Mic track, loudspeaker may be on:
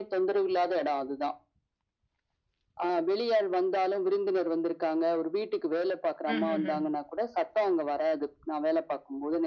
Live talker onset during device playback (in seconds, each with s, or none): 6.3 s